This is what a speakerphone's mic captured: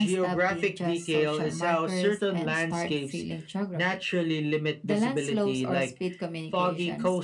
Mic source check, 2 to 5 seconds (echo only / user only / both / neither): echo only